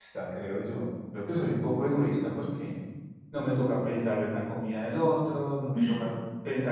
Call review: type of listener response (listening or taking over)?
listening